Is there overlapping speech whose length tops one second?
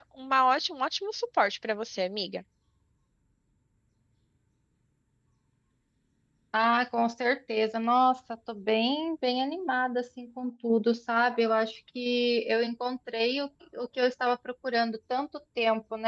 No

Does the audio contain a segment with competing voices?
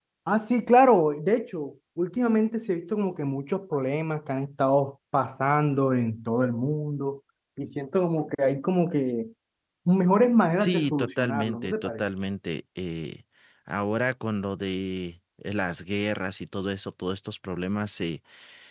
Yes, from 10.6 s

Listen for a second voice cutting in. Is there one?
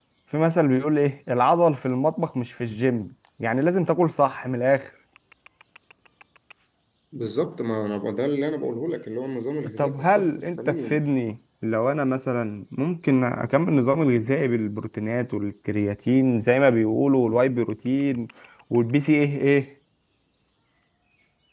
Yes, from 9.8 s

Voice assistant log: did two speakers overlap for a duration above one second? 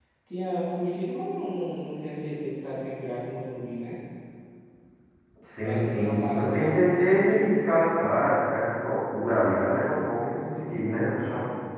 Yes, from 5.6 s

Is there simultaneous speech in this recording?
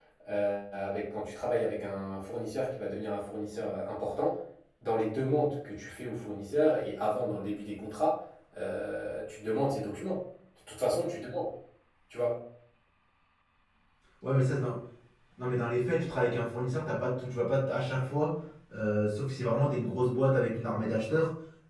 No

